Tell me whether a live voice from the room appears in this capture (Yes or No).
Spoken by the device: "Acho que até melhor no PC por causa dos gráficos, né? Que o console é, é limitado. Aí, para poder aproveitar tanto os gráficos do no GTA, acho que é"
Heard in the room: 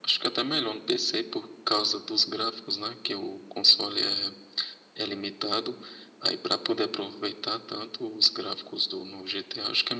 No